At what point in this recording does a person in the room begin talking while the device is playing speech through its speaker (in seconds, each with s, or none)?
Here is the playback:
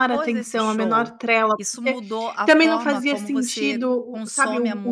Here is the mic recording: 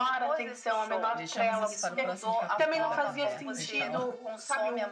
1.1 s